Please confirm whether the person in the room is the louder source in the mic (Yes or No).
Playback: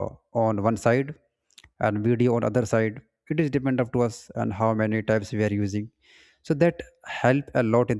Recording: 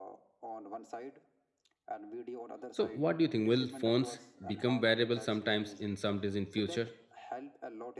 Yes